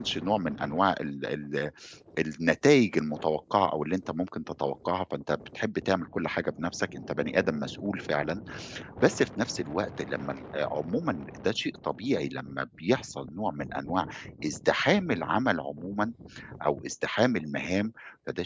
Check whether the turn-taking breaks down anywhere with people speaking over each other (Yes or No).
No